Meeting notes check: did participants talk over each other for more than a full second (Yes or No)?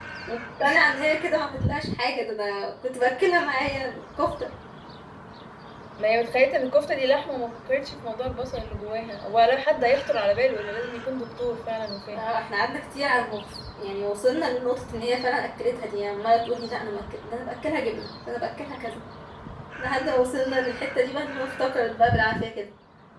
No